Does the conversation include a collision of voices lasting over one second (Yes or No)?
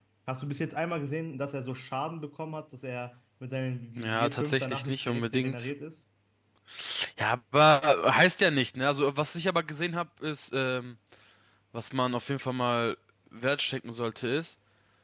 Yes